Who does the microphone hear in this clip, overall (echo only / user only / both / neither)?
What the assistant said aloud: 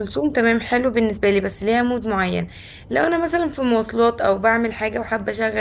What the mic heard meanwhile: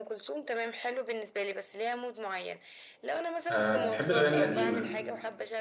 both